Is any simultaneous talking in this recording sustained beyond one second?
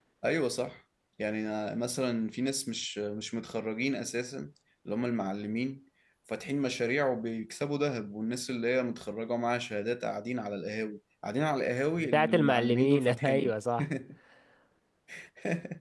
Yes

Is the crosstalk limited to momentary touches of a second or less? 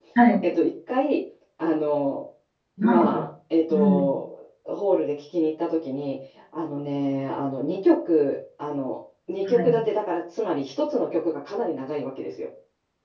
Yes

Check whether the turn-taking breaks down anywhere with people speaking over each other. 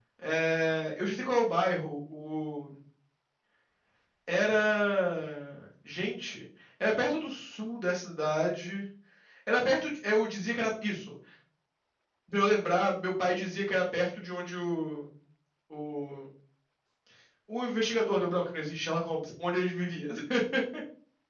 No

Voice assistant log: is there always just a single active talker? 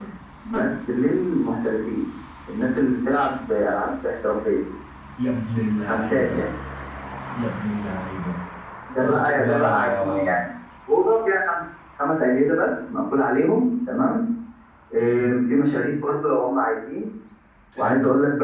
No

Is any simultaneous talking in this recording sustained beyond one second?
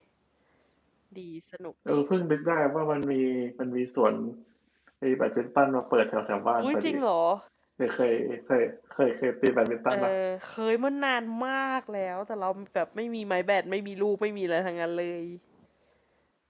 No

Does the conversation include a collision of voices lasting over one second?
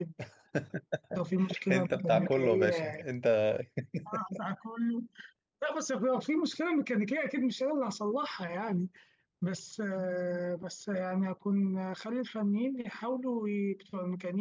Yes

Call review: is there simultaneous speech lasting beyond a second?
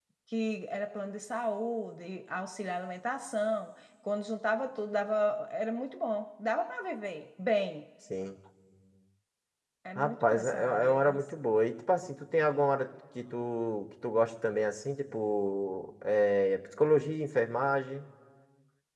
Yes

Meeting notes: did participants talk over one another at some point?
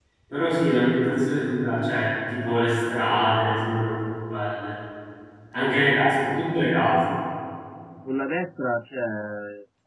No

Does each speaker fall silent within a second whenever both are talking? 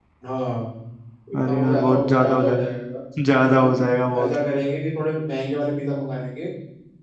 No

